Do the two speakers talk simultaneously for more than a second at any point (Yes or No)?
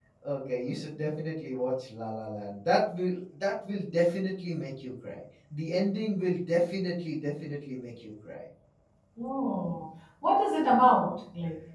No